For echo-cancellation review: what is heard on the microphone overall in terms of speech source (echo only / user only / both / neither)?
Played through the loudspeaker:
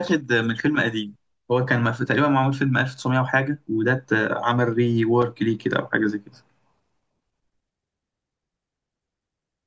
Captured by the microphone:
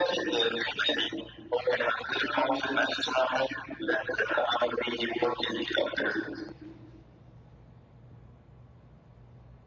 echo only